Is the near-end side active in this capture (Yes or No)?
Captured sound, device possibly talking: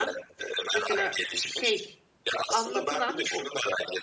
Yes